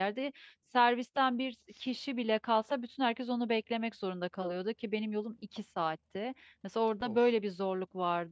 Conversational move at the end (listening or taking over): listening